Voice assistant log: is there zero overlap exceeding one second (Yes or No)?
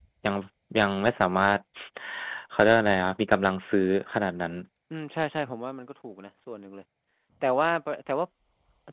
Yes